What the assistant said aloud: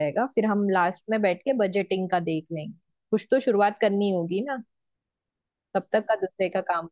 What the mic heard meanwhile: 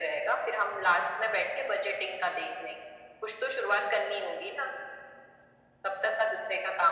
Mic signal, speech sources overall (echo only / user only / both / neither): echo only